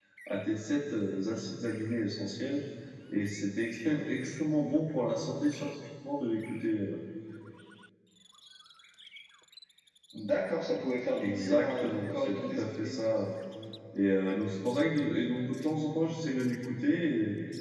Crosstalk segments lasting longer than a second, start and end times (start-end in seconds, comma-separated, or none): 11.2-12.9